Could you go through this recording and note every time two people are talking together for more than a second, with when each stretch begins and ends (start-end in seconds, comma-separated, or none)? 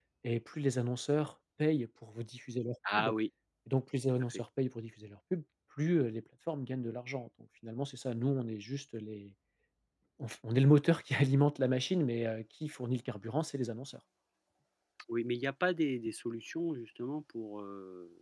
none